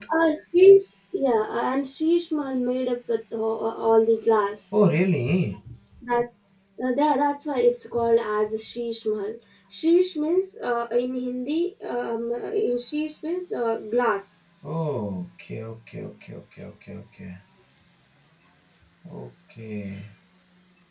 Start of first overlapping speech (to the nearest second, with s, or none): none